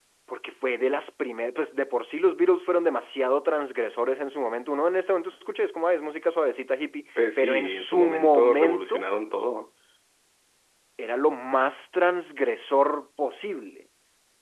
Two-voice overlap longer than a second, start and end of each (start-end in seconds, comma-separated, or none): 7.4-9.0